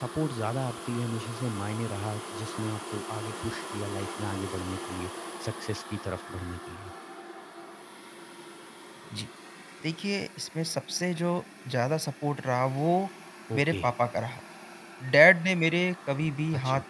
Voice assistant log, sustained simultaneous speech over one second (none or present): none